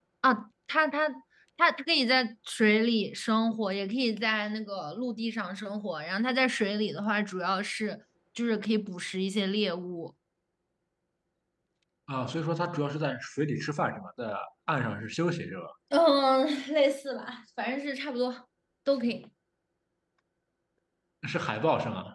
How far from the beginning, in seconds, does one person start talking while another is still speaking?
none

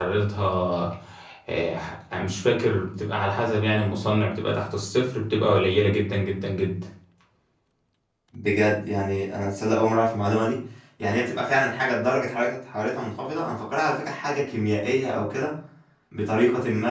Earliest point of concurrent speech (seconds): none

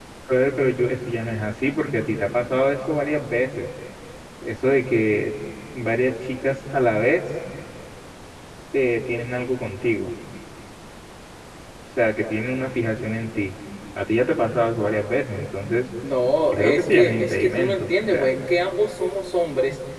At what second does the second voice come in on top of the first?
16.5 s

